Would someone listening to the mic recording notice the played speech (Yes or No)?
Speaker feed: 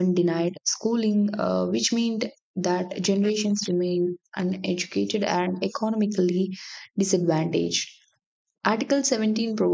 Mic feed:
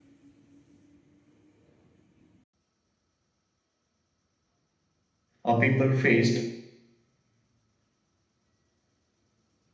No